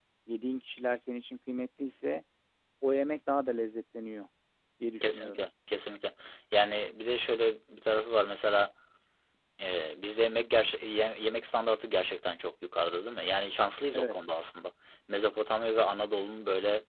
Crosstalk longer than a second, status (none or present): none